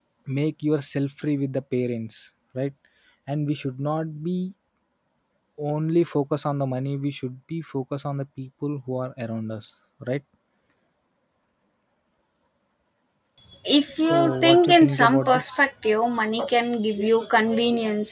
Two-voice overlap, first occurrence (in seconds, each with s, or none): 14.1 s